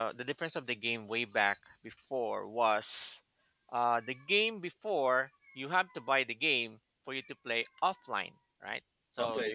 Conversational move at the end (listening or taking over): listening